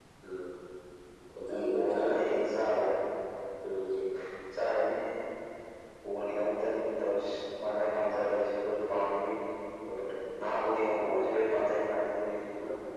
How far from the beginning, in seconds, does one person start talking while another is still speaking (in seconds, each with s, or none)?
1.5 s